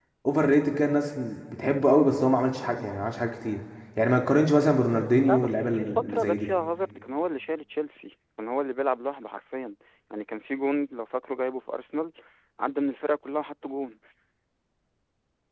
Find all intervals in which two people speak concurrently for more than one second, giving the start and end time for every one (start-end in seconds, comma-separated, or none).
5.3-6.5